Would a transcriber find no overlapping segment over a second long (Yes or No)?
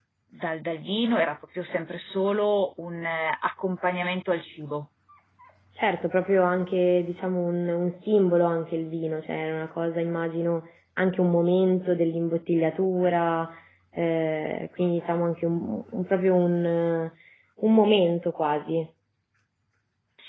Yes